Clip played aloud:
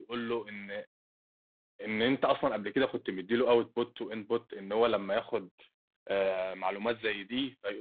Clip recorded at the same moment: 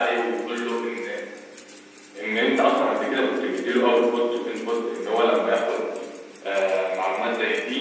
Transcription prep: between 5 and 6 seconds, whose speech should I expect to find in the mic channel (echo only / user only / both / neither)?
echo only